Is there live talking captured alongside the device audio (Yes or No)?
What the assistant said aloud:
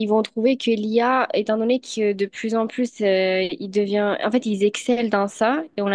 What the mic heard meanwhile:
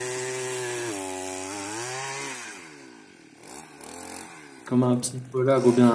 Yes